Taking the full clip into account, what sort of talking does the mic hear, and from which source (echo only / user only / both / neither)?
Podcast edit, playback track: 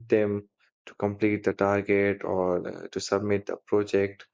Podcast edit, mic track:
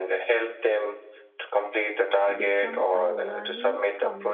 both